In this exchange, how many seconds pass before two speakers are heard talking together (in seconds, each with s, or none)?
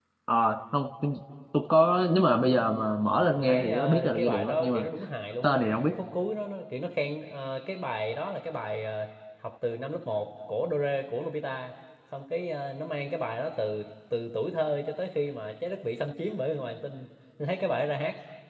3.4 s